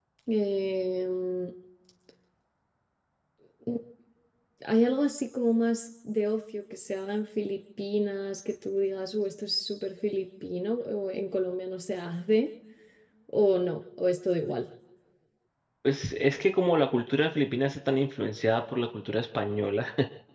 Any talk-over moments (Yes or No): No